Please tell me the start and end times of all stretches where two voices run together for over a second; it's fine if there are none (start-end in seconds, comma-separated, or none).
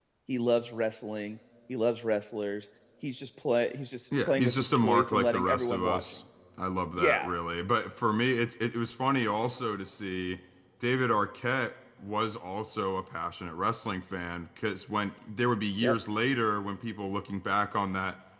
4.2-6.0